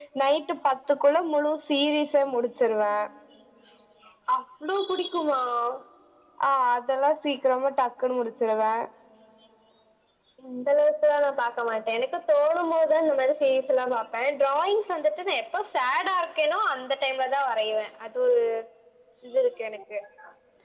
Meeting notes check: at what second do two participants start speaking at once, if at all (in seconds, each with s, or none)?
none